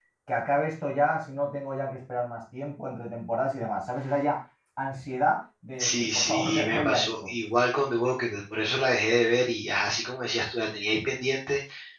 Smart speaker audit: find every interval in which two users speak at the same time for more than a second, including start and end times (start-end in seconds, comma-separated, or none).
5.8-7.3